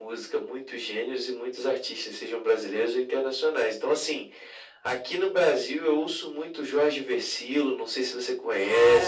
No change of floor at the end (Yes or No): No